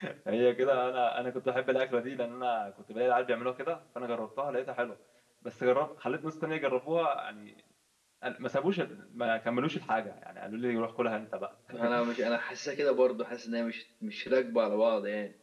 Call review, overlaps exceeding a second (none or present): none